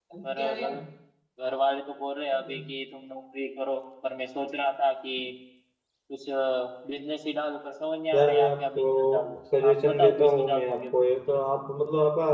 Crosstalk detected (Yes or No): Yes